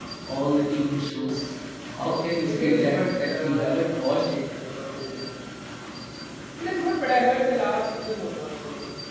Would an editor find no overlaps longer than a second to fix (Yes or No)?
No